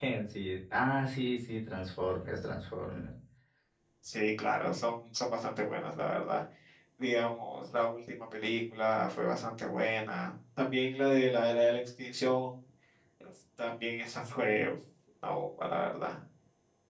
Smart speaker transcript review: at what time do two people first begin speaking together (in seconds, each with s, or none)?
none